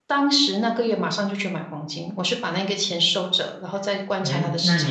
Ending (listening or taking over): taking over